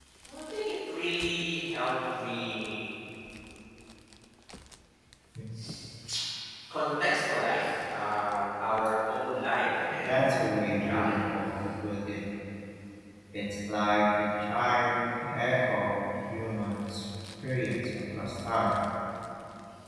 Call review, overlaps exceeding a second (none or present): present